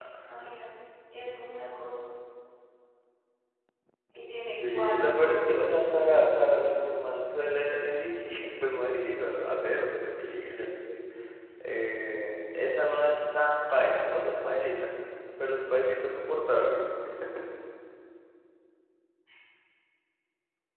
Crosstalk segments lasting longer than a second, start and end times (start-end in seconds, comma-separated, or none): 4.7-6.7